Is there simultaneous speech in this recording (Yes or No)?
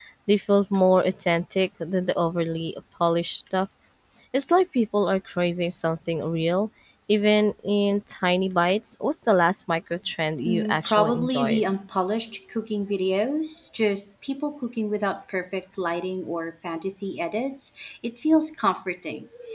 Yes